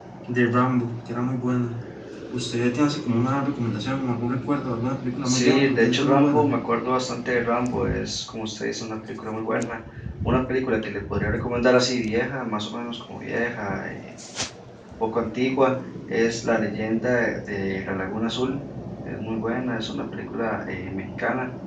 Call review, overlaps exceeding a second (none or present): present